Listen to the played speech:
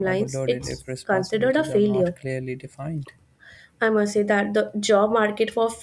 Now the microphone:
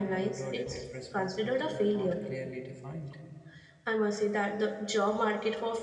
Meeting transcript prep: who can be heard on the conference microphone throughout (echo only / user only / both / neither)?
echo only